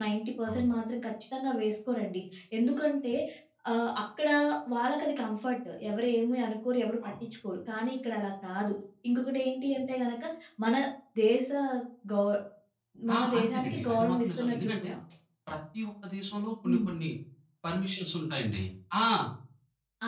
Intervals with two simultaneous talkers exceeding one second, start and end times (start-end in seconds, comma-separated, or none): 13.2-14.9